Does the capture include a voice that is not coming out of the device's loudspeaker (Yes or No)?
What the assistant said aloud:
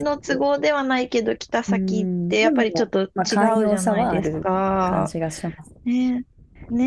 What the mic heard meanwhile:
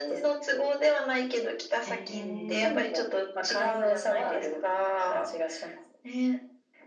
Yes